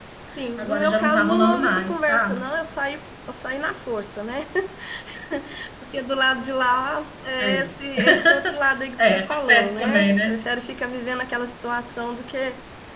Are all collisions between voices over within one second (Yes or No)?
No